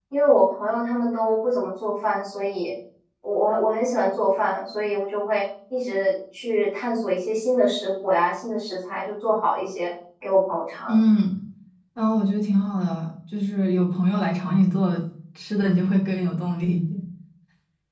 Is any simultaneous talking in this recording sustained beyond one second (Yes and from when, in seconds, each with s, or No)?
No